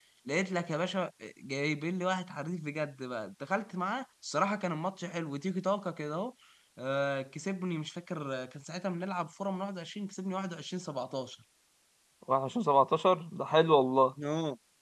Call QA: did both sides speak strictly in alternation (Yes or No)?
Yes